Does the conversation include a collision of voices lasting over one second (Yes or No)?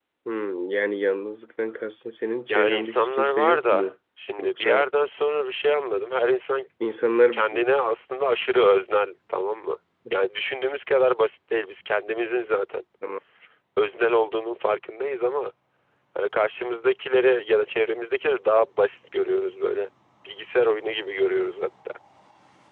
Yes